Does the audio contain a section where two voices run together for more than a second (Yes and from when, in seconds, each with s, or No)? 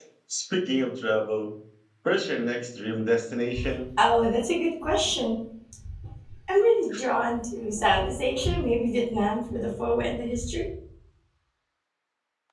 No